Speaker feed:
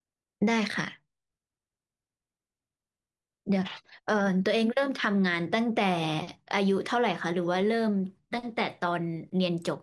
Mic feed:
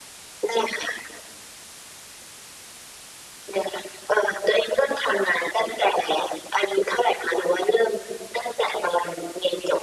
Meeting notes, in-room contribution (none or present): none